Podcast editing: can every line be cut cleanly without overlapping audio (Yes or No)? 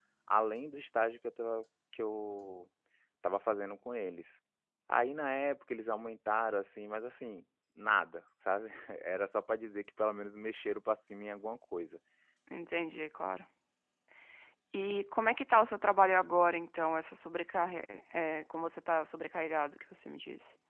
Yes